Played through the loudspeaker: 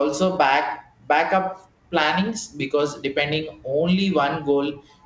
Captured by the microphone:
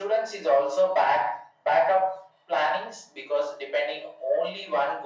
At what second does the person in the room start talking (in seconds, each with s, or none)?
none